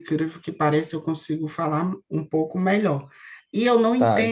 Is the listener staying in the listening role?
Yes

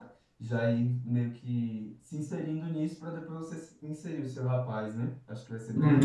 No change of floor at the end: No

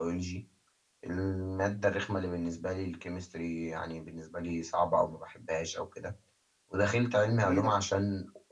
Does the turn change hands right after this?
No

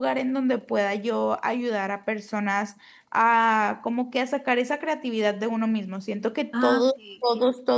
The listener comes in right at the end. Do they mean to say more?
No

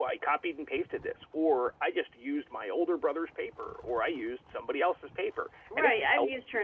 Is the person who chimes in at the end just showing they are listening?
No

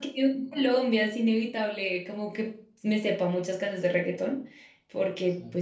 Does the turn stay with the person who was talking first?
Yes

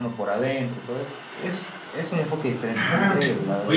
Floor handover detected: Yes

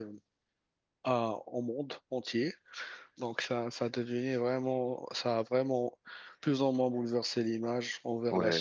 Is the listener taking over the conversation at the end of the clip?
Yes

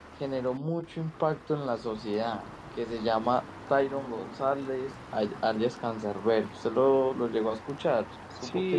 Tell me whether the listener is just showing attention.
No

